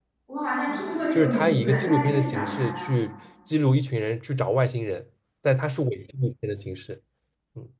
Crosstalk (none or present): present